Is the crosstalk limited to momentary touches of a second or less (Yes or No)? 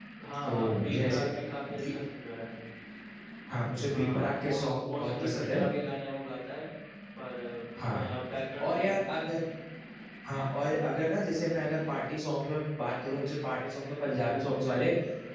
No